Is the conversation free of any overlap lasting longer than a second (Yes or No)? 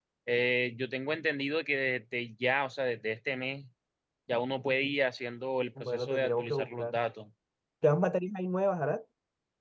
No